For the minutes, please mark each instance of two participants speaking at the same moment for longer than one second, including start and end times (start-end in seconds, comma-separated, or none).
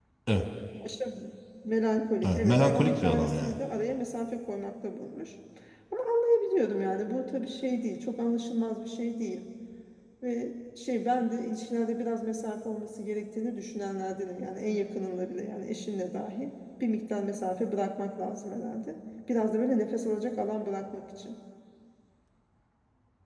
2.2-3.5